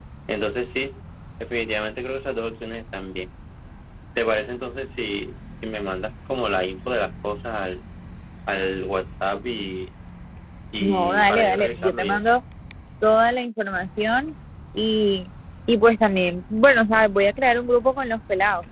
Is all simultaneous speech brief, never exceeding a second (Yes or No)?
No